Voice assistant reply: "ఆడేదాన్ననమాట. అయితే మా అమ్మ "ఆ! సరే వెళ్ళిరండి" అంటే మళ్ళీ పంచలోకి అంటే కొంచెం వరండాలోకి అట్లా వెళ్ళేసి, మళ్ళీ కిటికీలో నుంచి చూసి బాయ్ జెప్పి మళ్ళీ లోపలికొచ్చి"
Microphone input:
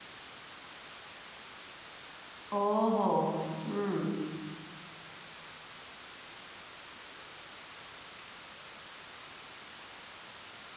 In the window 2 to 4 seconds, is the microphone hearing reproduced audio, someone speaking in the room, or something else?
user only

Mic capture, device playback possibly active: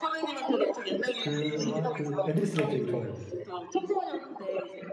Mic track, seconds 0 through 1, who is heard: echo only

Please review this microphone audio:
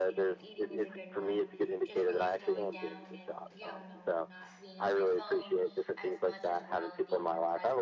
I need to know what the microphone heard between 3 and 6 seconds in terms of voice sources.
both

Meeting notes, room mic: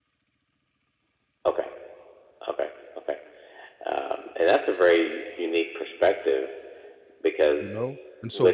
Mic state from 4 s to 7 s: echo only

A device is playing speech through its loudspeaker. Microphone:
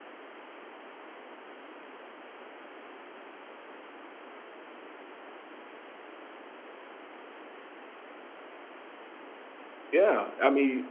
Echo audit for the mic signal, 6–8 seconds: neither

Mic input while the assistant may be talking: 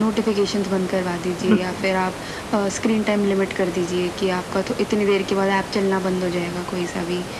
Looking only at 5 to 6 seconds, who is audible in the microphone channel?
echo only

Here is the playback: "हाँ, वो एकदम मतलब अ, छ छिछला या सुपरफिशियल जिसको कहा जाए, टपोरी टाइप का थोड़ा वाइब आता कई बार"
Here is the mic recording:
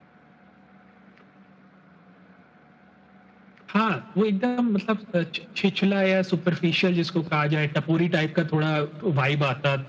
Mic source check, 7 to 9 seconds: echo only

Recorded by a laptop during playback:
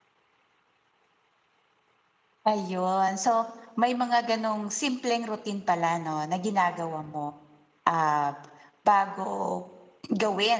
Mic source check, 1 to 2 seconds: neither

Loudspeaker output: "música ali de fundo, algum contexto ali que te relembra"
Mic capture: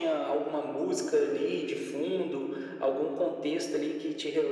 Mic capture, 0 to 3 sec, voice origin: echo only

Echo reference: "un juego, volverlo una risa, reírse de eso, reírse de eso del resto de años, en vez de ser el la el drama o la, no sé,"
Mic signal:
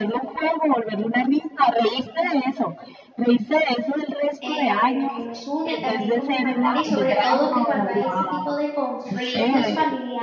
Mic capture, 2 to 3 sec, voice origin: echo only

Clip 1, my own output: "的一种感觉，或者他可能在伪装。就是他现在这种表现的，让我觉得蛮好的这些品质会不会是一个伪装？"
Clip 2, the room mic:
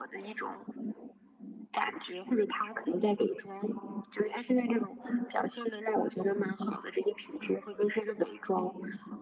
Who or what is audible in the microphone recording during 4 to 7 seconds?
echo only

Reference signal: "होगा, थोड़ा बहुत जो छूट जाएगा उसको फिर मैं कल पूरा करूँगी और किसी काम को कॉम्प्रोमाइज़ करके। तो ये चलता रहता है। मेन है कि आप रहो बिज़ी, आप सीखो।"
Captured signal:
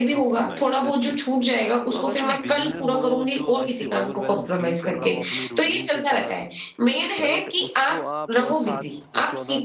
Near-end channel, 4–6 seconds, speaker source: both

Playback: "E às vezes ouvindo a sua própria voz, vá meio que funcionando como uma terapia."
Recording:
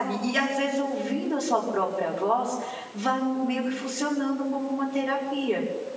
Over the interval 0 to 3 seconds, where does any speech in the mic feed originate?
echo only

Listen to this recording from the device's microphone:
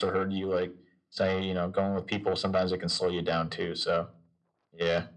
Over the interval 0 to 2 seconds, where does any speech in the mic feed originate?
echo only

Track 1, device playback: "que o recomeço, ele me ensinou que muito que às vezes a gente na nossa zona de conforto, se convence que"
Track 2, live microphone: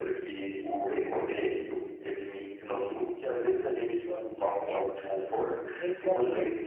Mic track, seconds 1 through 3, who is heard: echo only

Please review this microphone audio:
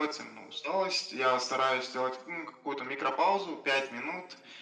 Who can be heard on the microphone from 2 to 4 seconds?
echo only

